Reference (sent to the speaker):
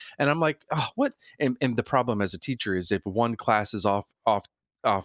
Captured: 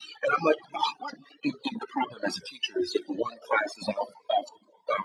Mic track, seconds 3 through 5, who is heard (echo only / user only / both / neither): echo only